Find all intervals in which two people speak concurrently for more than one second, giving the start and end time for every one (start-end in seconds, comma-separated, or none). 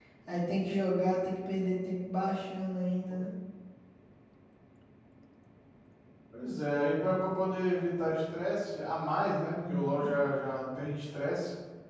none